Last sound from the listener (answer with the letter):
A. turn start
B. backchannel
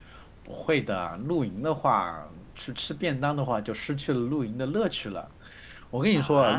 A